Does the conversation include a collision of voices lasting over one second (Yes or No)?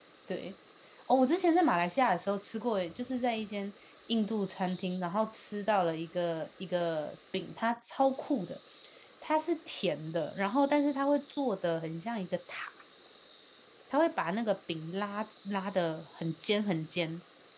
No